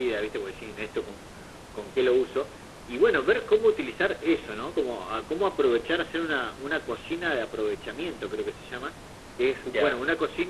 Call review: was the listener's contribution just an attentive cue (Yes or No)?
Yes